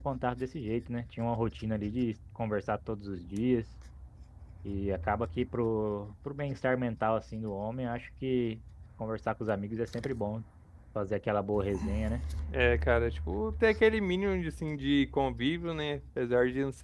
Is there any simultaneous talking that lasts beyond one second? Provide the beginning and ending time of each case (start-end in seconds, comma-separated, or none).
none